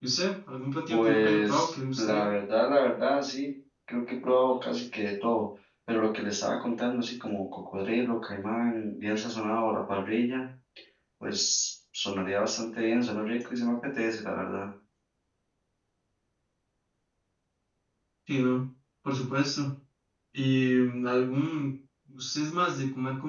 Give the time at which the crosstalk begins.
0.9 s

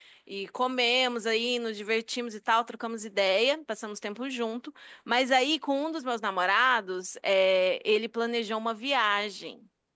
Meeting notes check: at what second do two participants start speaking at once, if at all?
none

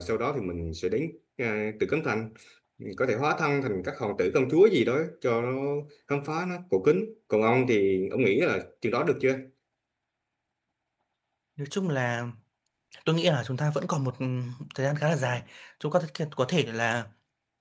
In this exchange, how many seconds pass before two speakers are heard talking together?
none

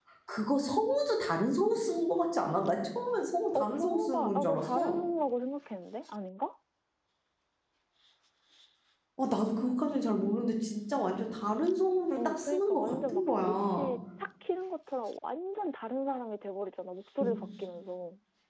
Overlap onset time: 3.5 s

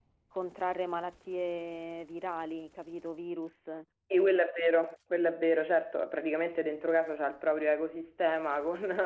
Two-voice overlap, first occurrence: none

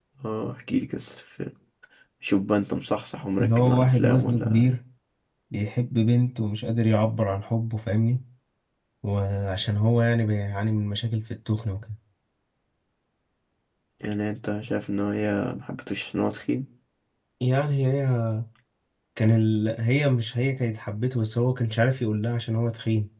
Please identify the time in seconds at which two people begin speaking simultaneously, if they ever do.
3.4 s

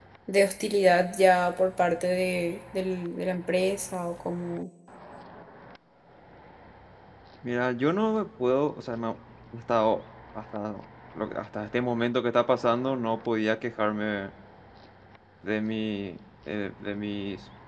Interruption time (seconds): none

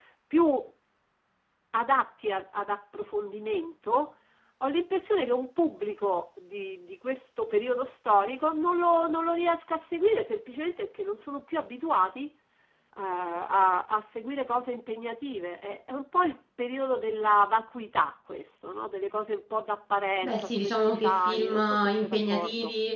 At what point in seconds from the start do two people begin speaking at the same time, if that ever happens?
20.2 s

